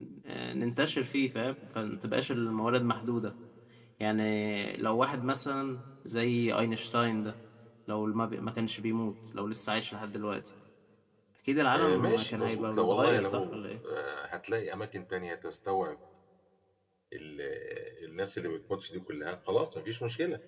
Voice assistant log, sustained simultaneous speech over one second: present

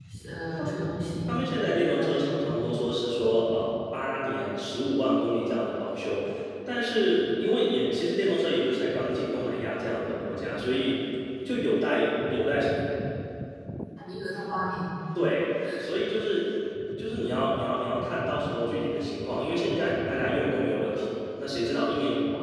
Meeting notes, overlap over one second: none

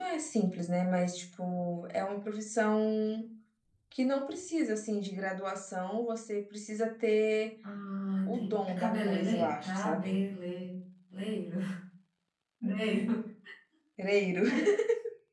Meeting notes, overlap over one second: present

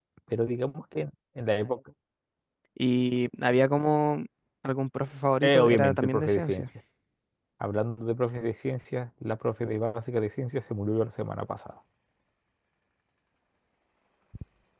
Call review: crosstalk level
present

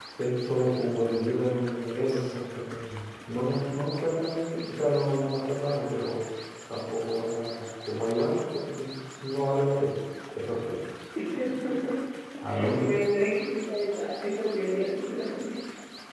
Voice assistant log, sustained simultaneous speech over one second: none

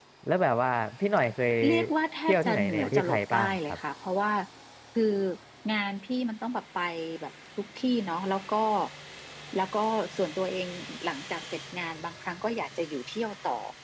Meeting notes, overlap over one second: present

